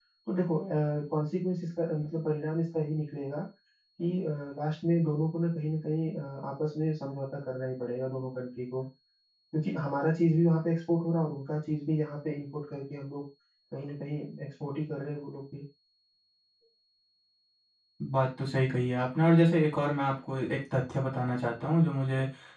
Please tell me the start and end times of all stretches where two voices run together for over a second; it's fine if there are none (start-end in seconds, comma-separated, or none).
none